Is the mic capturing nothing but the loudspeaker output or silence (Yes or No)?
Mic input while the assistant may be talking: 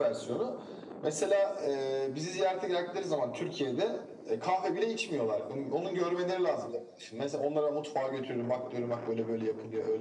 Yes